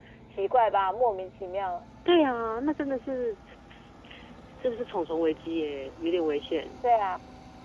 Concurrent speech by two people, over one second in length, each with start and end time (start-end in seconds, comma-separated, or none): none